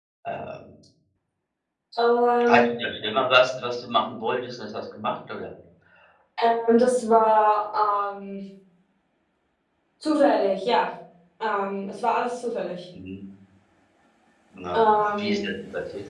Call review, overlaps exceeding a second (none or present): none